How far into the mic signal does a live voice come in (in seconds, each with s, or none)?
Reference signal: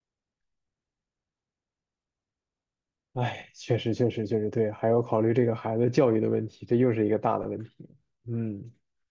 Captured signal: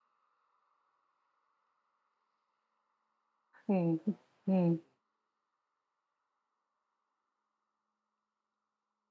3.7 s